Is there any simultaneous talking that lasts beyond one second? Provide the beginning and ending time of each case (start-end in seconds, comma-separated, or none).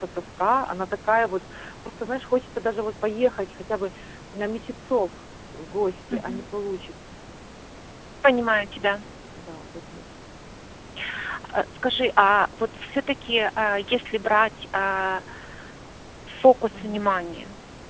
none